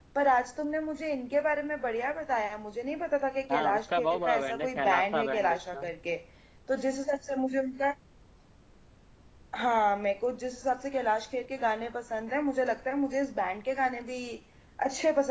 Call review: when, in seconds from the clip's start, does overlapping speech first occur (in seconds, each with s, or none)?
3.5 s